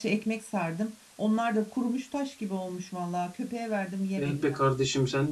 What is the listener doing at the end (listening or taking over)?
taking over